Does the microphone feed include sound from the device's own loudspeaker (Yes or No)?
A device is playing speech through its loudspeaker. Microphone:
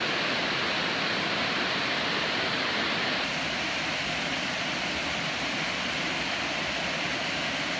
No